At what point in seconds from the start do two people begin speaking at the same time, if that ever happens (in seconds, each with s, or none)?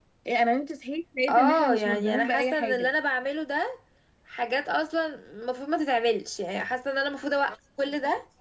1.3 s